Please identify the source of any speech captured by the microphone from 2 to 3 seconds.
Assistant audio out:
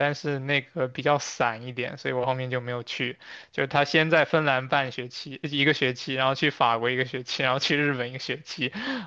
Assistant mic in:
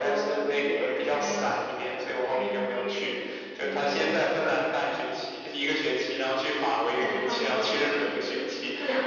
both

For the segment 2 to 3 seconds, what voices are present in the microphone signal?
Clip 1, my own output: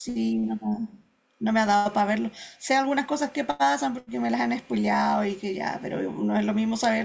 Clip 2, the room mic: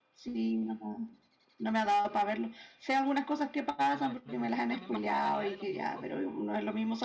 echo only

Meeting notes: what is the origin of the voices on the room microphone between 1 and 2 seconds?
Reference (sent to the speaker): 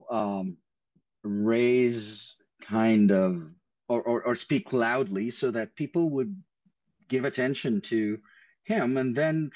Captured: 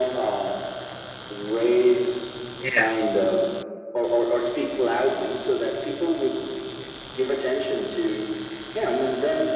echo only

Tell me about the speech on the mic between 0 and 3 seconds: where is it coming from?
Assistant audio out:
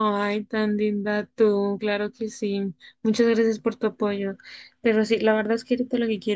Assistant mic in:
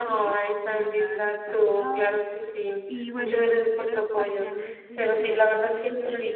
both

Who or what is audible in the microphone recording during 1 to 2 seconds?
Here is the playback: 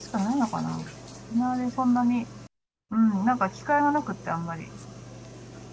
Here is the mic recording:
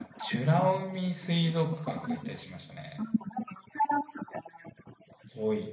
both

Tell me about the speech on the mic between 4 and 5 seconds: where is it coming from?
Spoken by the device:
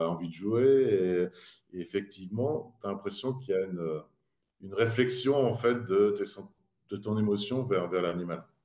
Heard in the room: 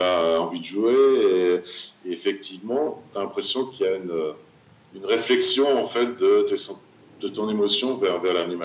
echo only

